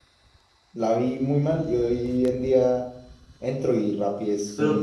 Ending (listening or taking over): listening